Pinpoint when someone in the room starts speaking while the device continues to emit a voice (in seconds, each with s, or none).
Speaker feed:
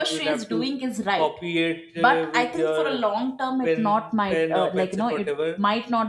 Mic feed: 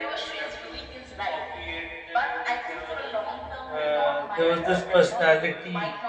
3.7 s